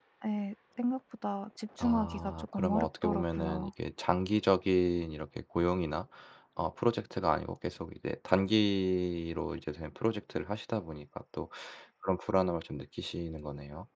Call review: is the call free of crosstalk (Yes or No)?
No